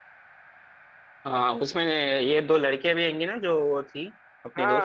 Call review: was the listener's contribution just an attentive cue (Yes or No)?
No